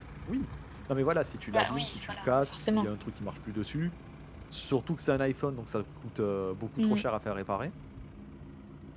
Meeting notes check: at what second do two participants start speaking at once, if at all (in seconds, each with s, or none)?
1.5 s